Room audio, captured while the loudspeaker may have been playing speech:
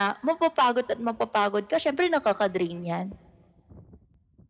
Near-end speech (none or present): none